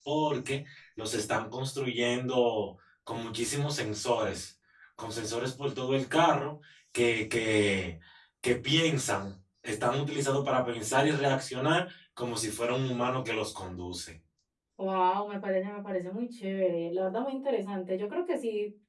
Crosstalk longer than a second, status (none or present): none